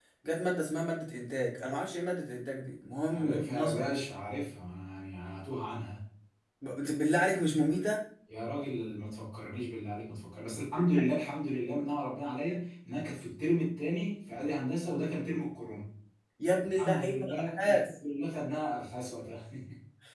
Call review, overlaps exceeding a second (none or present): present